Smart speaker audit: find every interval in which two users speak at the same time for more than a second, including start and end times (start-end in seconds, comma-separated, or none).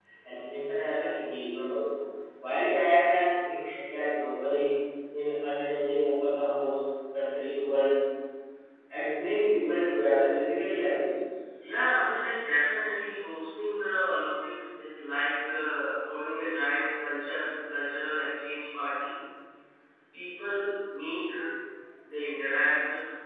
none